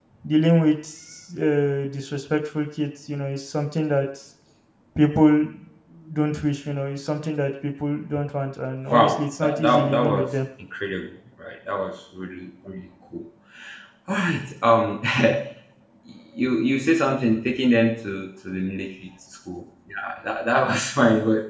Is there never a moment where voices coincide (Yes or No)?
No